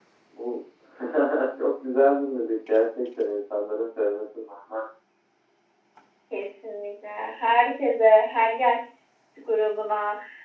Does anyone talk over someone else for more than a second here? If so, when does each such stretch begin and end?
none

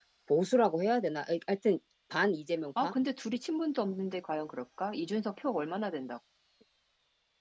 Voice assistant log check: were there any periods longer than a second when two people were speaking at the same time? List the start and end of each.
none

